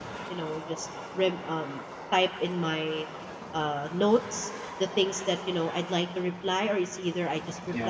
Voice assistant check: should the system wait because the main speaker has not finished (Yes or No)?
Yes